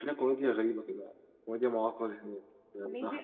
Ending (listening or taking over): taking over